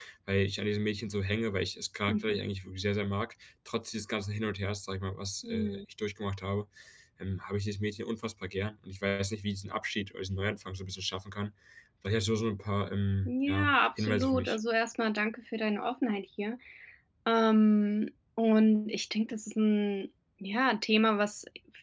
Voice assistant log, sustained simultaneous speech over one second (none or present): present